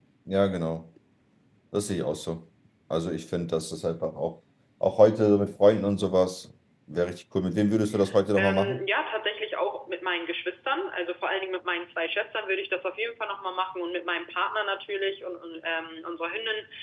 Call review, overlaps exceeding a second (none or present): none